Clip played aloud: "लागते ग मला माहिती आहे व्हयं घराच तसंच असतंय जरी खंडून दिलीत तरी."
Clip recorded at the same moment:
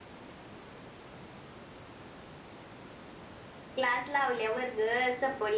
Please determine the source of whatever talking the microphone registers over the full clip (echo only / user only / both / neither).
user only